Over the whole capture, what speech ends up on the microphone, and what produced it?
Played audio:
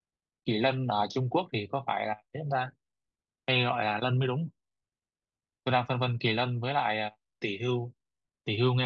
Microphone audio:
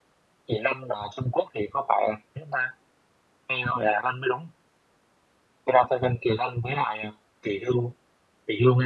echo only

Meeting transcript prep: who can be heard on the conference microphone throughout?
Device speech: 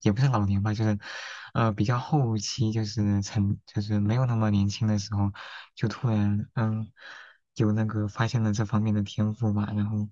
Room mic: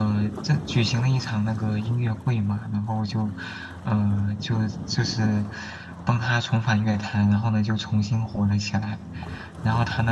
user only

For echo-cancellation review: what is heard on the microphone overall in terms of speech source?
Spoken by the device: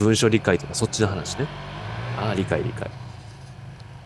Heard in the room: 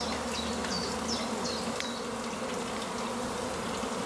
neither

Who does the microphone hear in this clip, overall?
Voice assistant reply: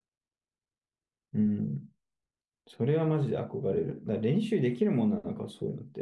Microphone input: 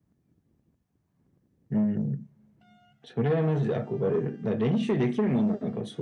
echo only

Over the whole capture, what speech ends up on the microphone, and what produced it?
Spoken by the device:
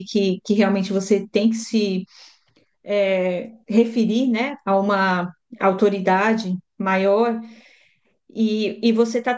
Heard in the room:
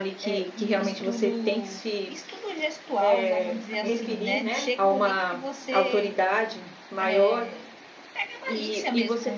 both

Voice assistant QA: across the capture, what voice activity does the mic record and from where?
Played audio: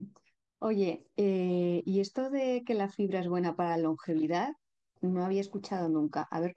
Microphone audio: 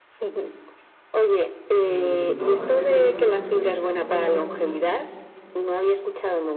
both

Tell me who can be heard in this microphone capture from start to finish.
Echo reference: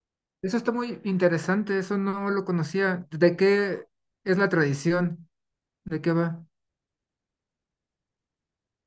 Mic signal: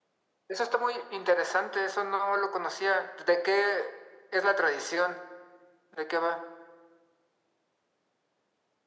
echo only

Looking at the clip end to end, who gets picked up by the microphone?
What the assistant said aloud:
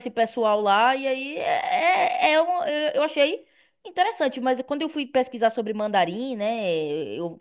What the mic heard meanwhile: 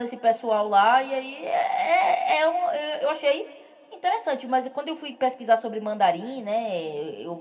echo only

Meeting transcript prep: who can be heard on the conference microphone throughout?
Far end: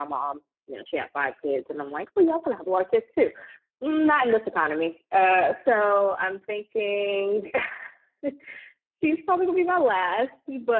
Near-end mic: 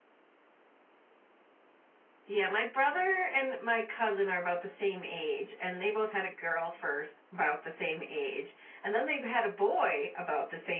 user only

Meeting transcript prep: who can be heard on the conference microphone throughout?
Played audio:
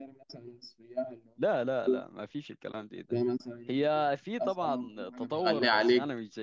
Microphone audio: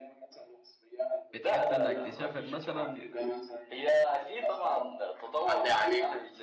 both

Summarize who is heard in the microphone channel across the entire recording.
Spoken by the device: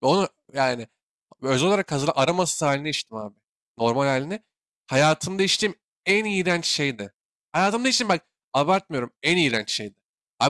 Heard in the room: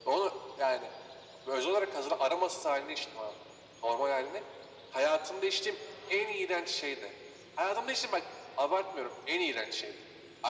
echo only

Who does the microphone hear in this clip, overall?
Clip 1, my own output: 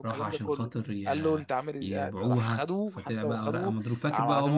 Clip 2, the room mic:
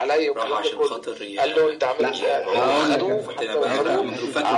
both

